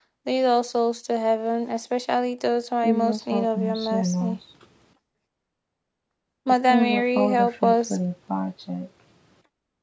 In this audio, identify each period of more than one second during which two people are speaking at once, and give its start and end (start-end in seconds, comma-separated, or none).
2.8-4.4, 6.7-8.0